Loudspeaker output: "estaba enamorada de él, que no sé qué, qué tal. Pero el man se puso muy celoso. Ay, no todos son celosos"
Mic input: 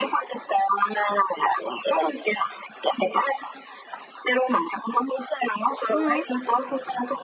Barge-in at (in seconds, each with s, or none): 5.9 s